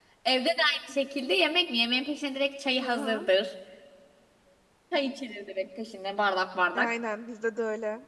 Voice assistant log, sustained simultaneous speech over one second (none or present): none